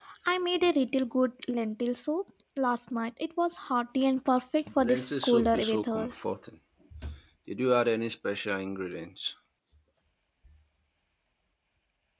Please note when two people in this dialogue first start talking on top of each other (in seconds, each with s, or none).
4.8 s